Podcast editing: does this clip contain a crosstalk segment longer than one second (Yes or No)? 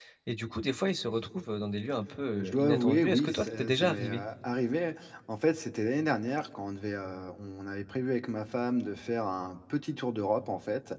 Yes